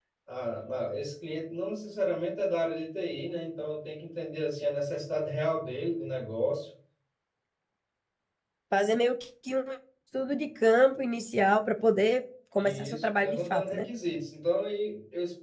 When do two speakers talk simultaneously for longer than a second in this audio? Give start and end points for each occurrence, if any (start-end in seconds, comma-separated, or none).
12.6-13.8